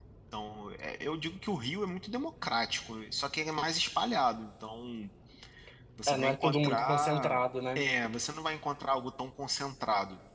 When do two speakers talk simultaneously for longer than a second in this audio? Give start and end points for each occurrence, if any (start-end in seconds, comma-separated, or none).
6.1-7.3